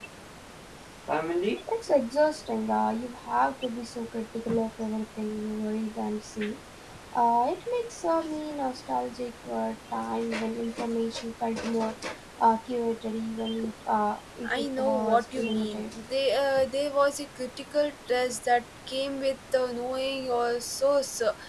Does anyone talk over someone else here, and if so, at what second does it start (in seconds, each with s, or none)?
14.4 s